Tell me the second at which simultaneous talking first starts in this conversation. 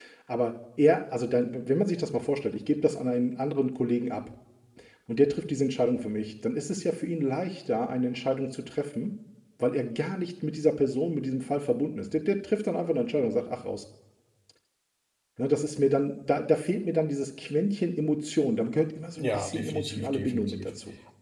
19.2 s

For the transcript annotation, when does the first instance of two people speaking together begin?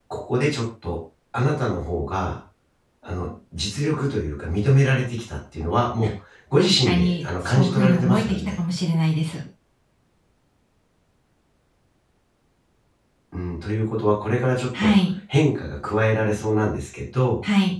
6.6 s

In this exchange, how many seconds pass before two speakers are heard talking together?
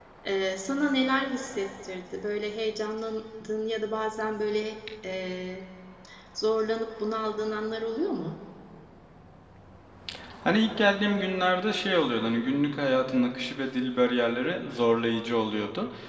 none

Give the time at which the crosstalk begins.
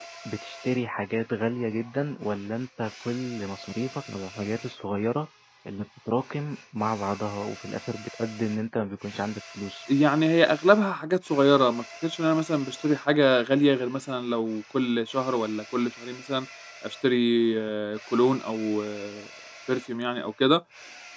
none

